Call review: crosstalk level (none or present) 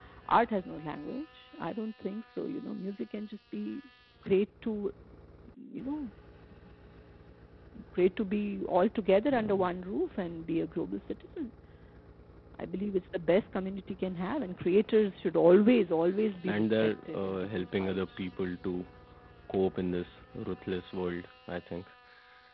present